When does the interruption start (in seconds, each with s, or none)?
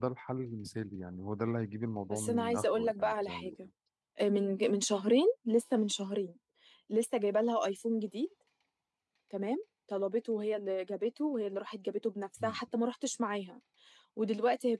2.1 s